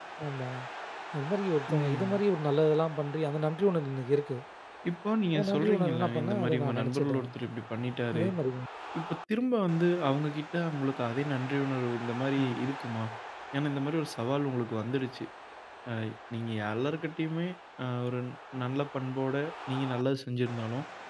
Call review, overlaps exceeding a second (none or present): present